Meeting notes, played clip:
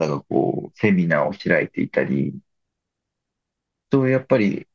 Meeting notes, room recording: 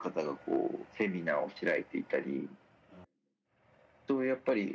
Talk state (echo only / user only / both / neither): echo only